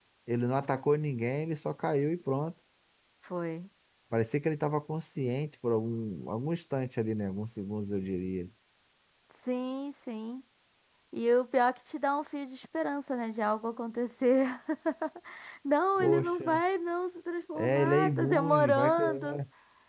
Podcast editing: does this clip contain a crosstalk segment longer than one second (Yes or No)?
Yes